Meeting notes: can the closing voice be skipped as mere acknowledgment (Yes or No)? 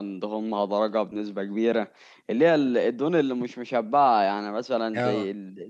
Yes